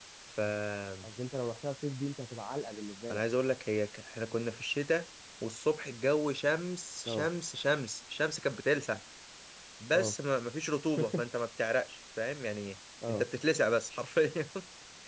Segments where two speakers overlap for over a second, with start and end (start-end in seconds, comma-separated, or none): none